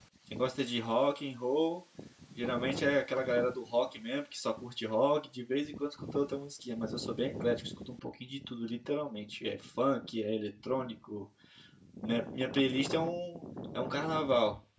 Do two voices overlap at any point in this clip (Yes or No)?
No